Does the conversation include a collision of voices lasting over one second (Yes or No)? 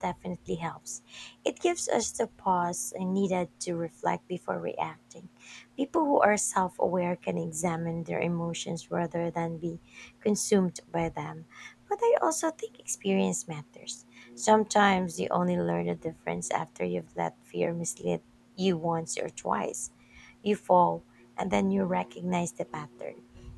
No